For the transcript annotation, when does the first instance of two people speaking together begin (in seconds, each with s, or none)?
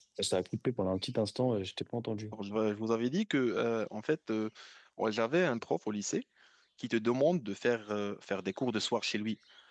none